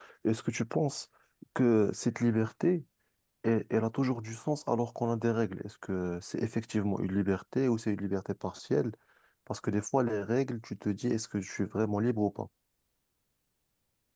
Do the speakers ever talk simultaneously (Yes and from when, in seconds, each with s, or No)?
No